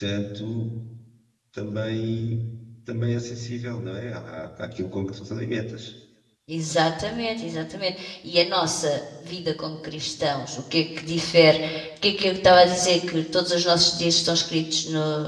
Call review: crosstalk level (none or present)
none